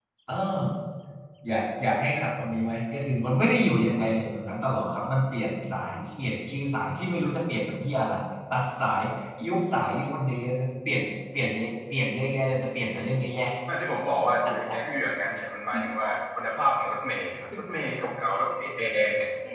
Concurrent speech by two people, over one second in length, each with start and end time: none

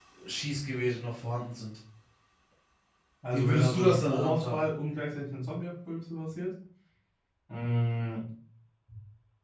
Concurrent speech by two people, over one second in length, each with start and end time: 3.3-4.7

